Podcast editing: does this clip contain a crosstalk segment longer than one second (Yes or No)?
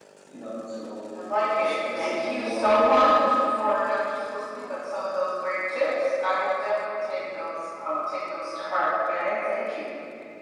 Yes